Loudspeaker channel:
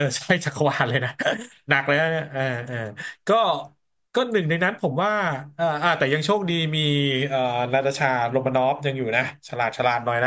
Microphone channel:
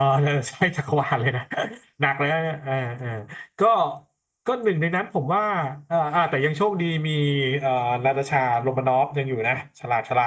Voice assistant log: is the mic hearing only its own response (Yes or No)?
Yes